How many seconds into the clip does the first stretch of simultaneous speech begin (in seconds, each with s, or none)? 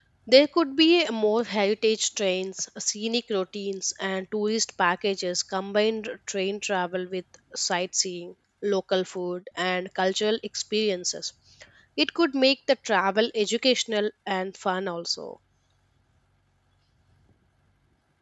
none